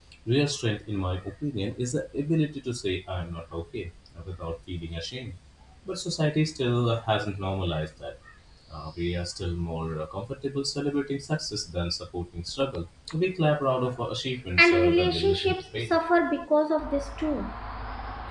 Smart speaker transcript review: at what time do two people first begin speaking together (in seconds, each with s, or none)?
14.6 s